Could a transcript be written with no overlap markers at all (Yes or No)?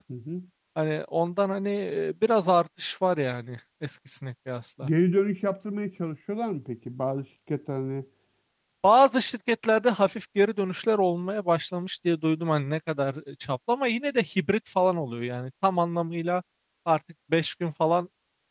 Yes